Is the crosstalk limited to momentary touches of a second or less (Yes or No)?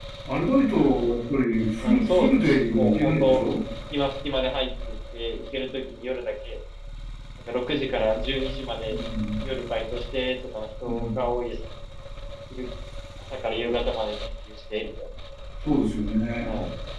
No